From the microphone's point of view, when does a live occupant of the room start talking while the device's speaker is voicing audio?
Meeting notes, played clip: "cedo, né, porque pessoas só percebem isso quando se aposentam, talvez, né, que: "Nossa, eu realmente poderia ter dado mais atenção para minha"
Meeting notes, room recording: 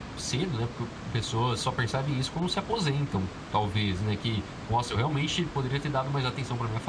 none

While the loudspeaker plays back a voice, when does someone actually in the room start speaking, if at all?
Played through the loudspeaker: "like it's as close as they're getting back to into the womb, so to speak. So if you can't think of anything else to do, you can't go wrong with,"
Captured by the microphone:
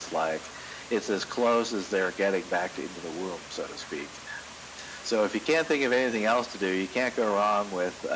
none

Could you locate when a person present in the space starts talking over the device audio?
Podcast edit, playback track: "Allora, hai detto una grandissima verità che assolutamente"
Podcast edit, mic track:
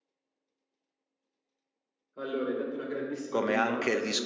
3 s

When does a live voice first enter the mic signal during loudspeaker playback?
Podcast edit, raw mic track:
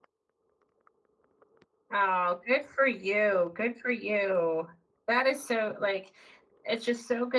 2 s

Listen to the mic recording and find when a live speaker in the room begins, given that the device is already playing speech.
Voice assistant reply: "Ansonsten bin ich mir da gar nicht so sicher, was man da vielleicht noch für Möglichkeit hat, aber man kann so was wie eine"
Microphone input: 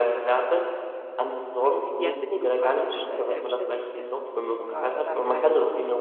2 s

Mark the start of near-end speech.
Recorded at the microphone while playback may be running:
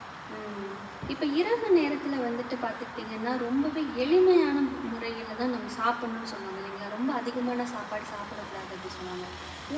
0 s

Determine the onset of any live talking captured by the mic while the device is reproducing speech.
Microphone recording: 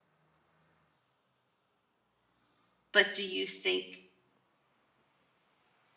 3 s

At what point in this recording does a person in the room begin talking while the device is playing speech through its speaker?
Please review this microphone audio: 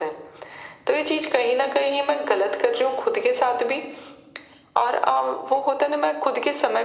none

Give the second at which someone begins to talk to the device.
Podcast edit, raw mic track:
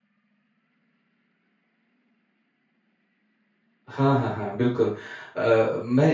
4 s

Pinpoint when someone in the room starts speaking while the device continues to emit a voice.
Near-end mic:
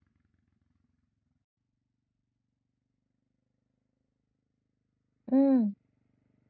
5 s

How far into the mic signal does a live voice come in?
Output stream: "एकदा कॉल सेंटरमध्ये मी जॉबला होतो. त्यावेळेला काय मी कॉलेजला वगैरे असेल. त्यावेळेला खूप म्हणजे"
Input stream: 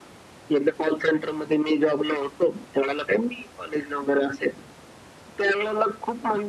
none

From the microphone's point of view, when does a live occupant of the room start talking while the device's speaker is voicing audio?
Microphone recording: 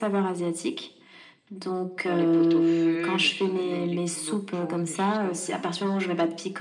none

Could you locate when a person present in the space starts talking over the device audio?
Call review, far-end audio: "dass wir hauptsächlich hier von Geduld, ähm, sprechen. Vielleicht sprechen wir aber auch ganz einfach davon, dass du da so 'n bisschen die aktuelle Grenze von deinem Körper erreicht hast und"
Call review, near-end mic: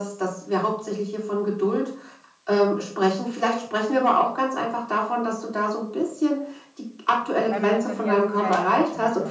7 s

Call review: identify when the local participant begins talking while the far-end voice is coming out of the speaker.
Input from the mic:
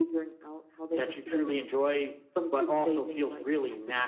none

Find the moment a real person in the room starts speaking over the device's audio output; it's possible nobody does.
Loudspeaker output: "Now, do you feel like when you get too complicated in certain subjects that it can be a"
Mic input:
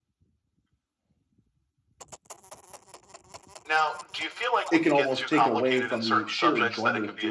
5 s

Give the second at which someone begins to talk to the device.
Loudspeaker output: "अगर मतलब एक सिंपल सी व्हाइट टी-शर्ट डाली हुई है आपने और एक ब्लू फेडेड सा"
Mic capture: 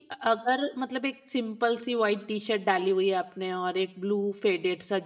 none

